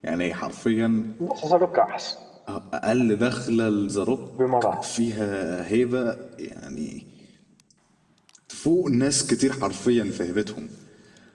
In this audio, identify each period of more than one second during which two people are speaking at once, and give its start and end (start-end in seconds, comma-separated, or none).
none